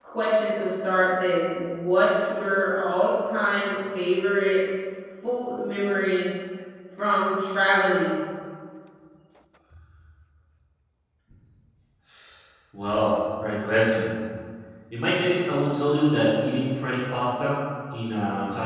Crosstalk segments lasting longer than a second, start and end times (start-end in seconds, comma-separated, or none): none